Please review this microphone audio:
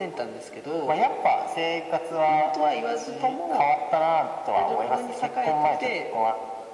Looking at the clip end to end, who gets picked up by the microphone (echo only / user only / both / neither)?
echo only